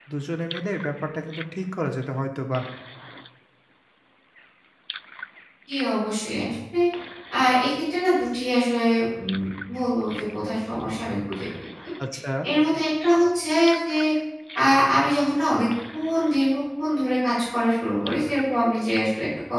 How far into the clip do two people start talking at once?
none

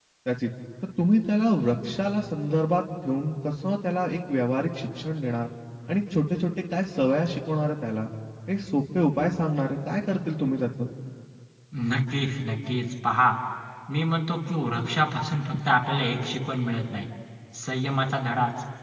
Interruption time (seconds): none

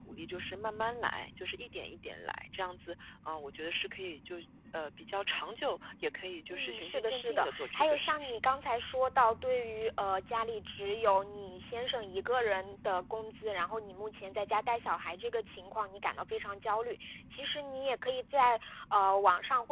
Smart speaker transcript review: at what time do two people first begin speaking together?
6.5 s

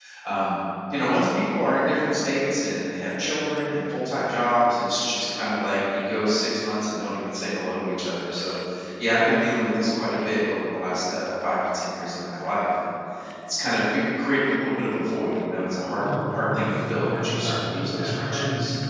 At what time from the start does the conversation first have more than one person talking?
16.0 s

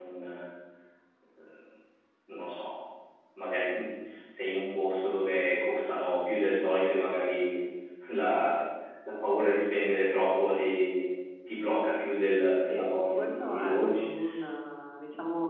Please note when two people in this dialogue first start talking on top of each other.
12.7 s

